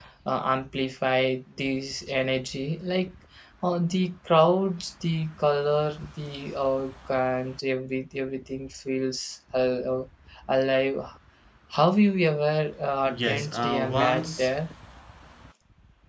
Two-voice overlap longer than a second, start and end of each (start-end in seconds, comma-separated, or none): 13.0-14.5